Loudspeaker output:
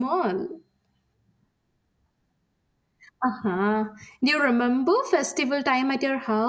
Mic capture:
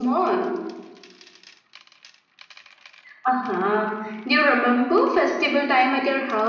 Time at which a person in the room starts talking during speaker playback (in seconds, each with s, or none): none